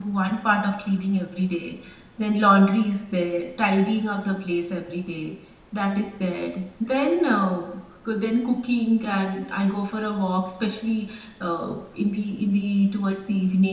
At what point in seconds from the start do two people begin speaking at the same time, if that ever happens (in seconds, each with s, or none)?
none